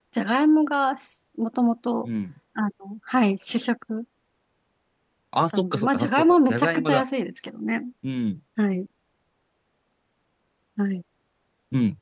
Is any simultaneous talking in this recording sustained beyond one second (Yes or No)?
Yes